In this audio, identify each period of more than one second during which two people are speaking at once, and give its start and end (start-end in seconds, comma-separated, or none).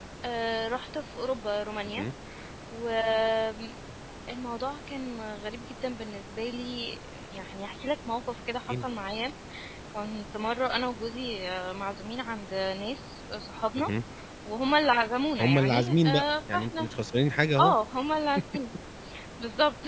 15.4-16.9